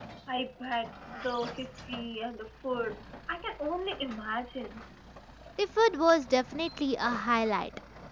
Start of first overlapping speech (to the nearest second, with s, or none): none